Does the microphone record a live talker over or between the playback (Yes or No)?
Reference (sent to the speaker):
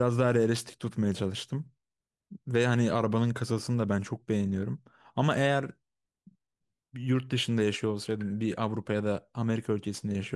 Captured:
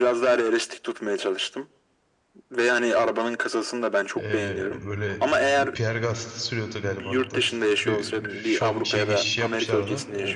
Yes